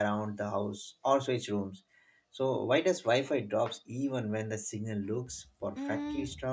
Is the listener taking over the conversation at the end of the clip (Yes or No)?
Yes